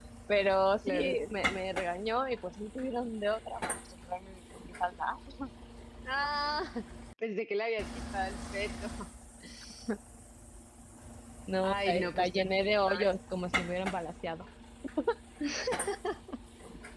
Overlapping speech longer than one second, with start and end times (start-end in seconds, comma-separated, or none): 11.6-13.1